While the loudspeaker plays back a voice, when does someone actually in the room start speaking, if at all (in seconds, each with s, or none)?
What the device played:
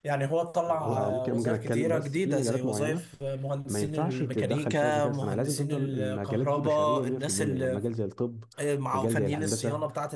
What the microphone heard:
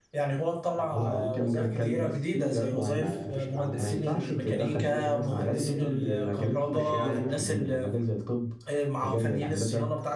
2.9 s